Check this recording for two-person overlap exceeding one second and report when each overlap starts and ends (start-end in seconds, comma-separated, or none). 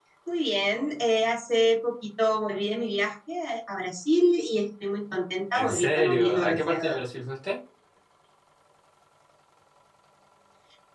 5.5-7.0